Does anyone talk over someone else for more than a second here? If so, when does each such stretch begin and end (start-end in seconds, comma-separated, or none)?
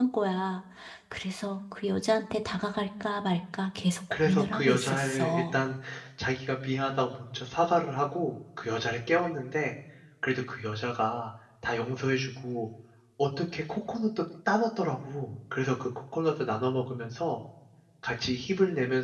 4.2-5.5